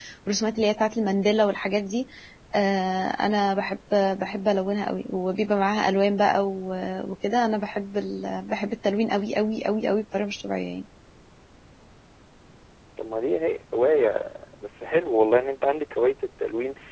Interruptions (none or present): none